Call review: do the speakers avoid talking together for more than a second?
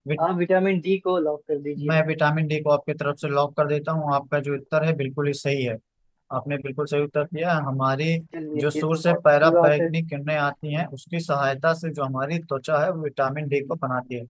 No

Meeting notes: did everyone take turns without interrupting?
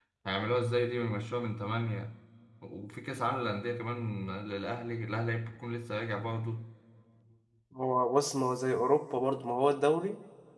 Yes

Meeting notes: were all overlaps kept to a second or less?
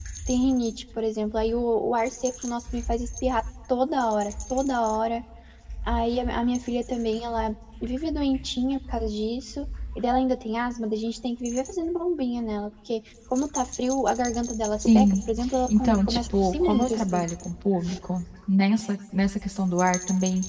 No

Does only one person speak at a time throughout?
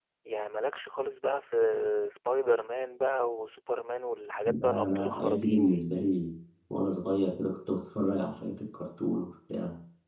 No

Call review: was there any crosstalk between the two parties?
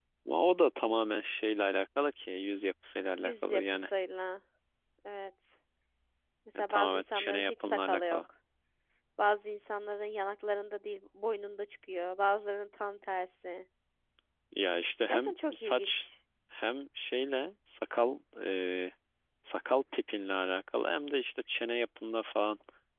Yes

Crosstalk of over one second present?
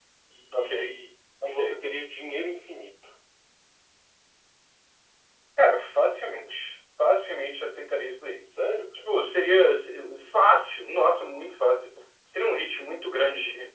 No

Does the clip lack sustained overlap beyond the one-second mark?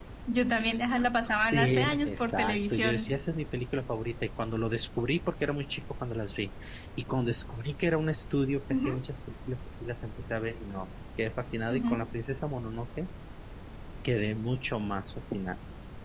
No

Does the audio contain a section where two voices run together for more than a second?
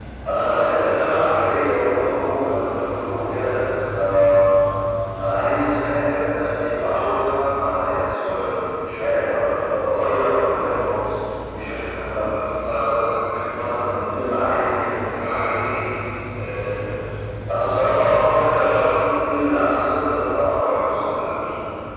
No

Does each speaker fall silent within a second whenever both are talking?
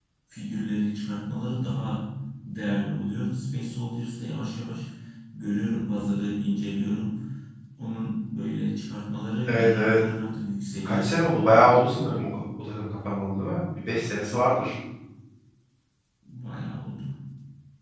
Yes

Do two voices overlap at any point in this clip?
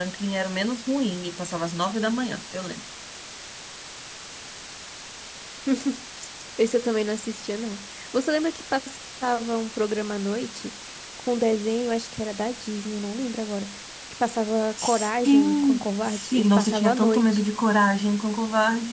Yes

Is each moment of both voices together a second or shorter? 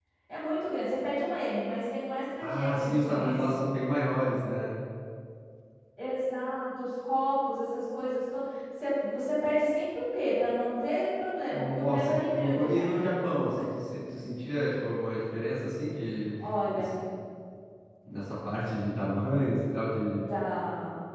No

